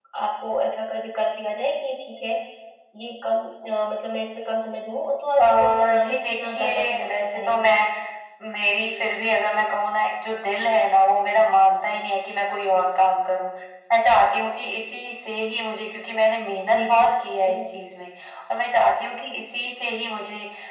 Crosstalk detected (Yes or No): Yes